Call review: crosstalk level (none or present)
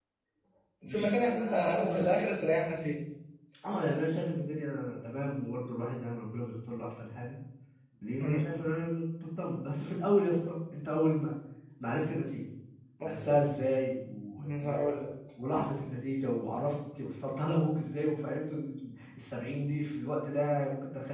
present